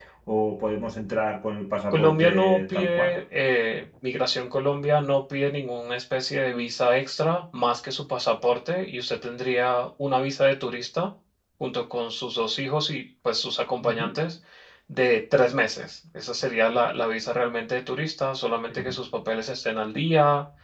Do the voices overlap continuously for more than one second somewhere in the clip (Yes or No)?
Yes